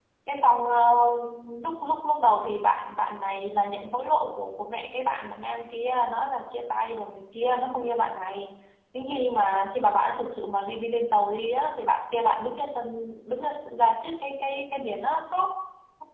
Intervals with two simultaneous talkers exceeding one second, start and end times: none

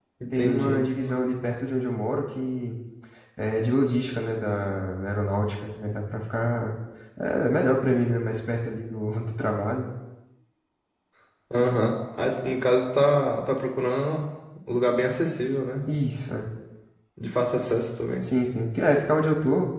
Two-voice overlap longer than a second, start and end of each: none

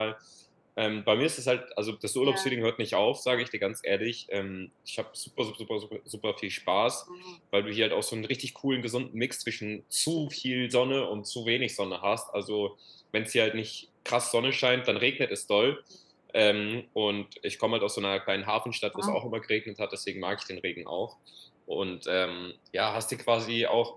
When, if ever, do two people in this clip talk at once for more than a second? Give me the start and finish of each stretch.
none

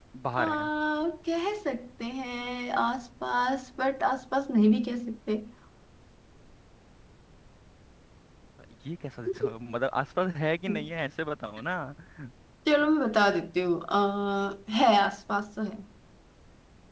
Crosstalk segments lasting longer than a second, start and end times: none

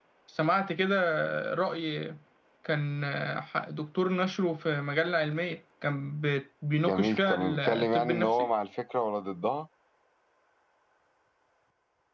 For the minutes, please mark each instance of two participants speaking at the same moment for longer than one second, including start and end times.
6.8-8.5

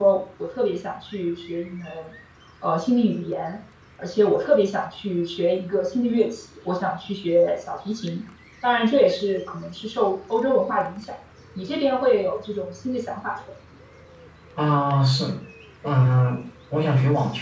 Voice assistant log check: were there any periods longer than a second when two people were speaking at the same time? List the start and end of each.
none

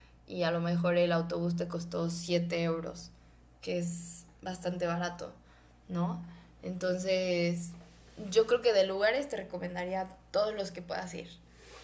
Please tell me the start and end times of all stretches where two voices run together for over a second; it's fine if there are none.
none

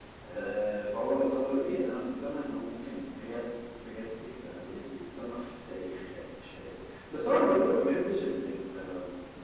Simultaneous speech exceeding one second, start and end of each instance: none

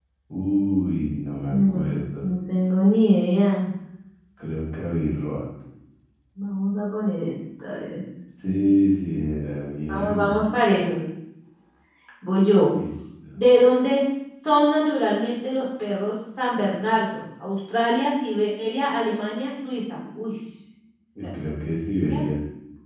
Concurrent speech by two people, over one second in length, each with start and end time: none

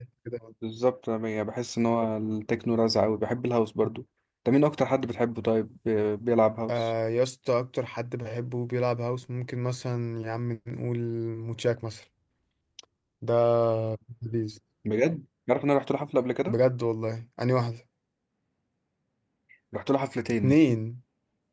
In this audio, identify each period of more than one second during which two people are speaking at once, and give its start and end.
none

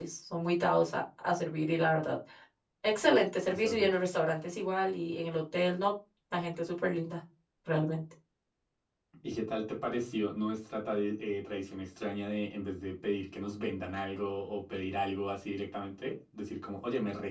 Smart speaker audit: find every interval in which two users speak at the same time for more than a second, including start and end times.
none

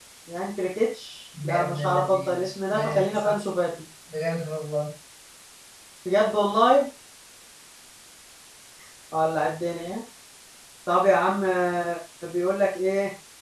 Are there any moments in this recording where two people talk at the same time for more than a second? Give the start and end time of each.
1.5-3.4

